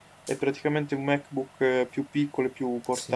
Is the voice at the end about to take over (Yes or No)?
Yes